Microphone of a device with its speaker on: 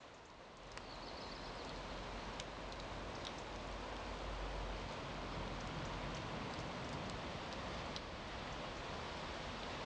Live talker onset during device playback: none

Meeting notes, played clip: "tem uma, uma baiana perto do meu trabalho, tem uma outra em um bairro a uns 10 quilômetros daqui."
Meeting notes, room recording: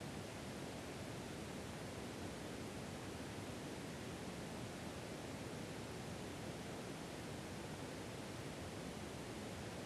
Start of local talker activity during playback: none

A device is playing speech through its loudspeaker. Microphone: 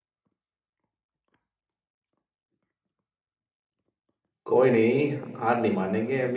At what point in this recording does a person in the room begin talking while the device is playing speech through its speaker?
4 s

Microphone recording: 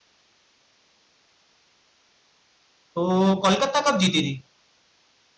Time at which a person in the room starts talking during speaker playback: 3 s

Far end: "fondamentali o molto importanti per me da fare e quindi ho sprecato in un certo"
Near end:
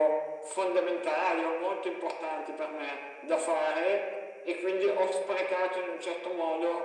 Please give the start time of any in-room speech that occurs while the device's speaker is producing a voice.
none

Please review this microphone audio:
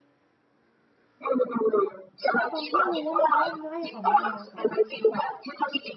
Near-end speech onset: 2 s

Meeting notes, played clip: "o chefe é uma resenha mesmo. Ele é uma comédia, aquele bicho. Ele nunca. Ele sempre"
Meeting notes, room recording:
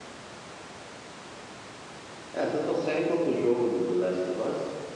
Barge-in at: 2 s

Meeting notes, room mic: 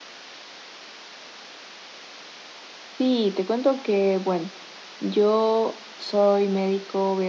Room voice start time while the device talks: 3 s

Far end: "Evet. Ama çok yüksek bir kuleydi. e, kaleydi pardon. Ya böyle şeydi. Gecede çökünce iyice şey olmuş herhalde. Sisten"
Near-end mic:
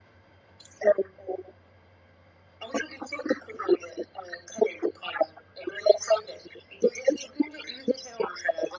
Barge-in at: none

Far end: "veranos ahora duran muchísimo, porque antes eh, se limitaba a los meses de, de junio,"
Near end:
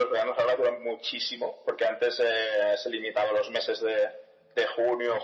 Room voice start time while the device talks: none

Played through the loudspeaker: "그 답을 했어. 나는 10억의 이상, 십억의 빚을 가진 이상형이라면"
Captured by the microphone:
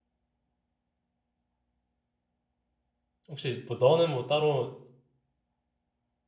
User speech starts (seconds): 3 s

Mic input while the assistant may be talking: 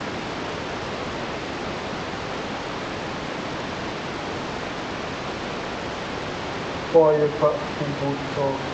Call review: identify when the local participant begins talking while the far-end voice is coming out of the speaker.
7 s

